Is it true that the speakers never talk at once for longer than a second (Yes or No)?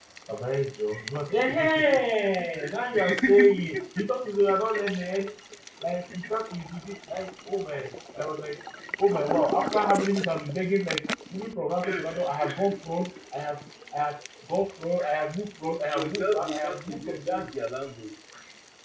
No